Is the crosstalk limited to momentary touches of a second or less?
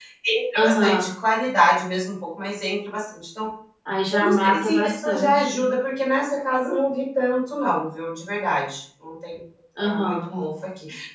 No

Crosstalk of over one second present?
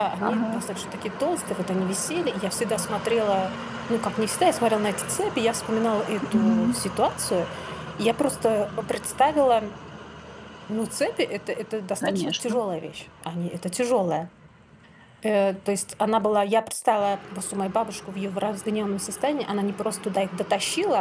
No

